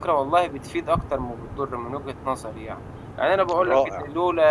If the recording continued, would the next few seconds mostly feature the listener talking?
No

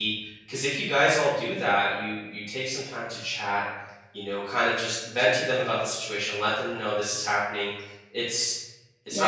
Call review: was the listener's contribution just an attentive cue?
No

